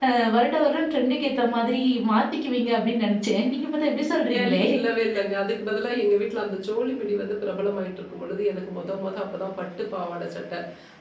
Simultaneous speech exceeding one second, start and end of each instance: none

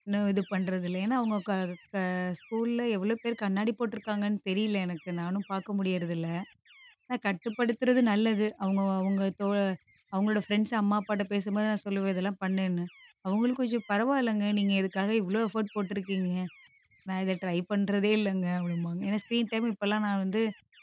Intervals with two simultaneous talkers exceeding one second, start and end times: none

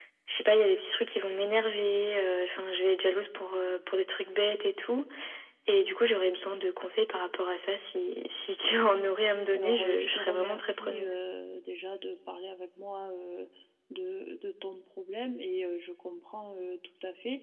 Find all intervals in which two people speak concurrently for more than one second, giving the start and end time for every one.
9.5-11.1

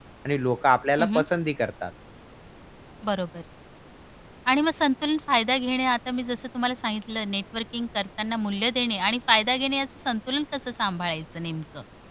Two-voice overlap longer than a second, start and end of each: none

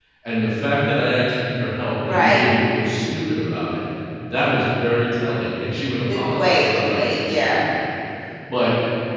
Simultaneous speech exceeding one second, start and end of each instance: 6.1-7.6

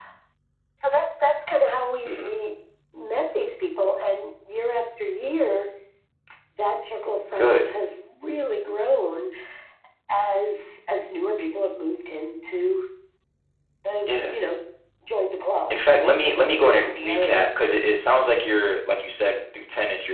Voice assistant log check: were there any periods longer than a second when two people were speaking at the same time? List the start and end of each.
15.7-17.5

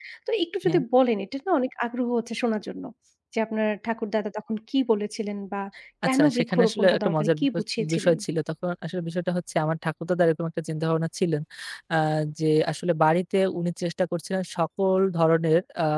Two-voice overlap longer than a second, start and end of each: 6.0-8.2

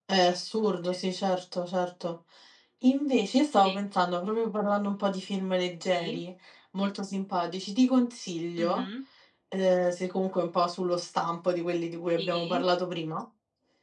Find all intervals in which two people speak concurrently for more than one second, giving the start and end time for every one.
none

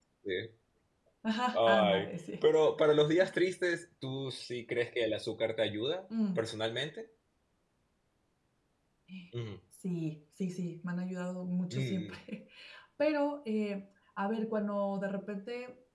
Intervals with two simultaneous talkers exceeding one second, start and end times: none

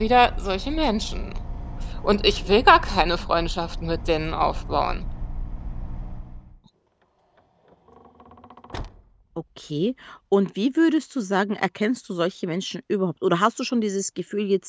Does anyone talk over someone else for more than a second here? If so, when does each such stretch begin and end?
none

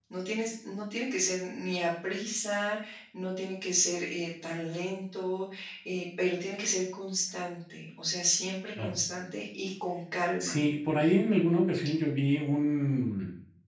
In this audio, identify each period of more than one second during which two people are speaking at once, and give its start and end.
none

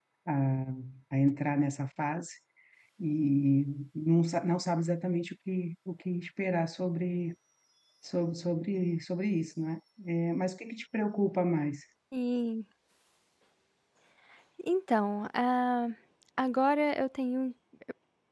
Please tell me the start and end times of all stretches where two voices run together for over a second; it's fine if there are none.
none

